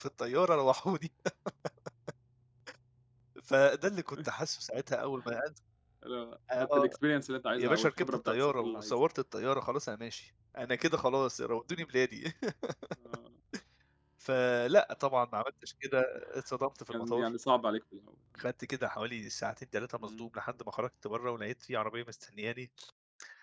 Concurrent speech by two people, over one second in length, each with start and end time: 7.6-8.9

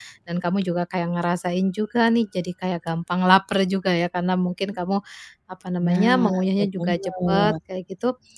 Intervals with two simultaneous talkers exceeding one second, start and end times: 5.8-7.5

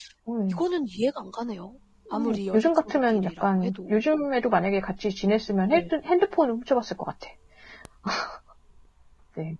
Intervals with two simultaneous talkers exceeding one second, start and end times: 2.1-4.0

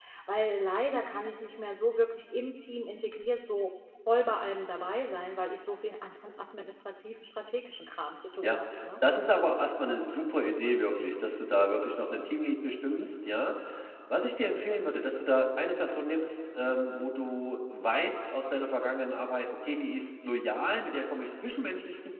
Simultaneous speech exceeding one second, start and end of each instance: none

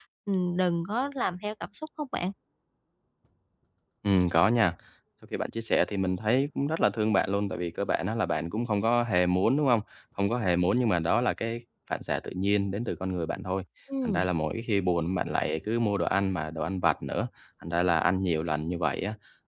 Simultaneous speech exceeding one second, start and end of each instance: none

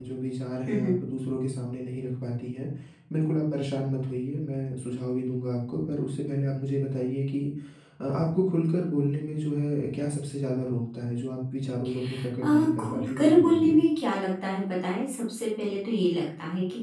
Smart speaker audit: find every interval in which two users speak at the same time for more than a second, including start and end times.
12.4-13.8

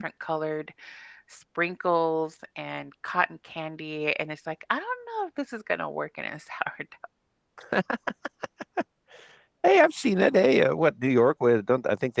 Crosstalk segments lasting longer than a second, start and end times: none

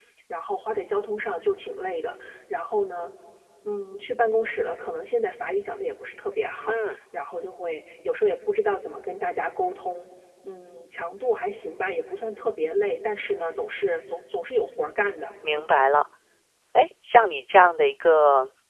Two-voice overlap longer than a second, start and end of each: none

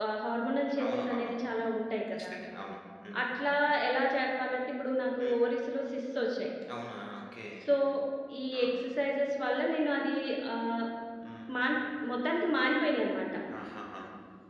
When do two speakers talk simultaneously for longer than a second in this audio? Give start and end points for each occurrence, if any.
none

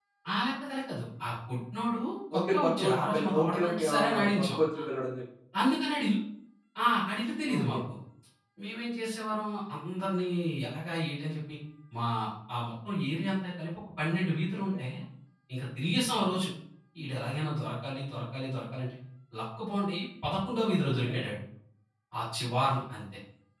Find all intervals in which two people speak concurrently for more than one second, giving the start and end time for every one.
2.4-4.8

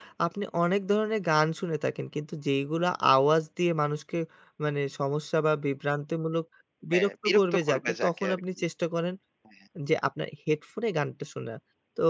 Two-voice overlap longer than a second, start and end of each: 6.9-8.4

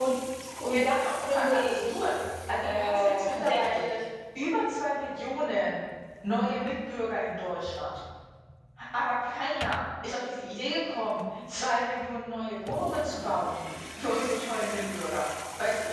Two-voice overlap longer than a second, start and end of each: 0.7-2.1, 2.6-3.9

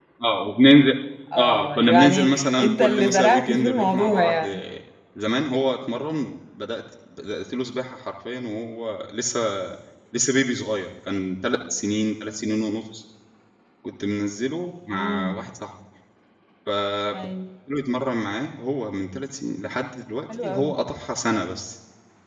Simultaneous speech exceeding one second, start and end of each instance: 1.4-4.4

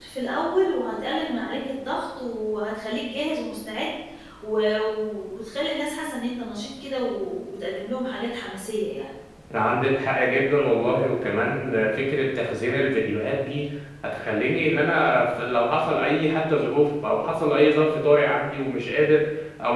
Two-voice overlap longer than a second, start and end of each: none

